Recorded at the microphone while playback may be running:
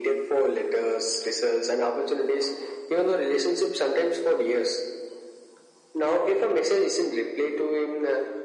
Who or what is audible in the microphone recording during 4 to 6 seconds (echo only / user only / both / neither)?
echo only